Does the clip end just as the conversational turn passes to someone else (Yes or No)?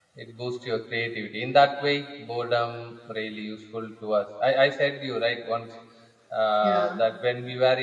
No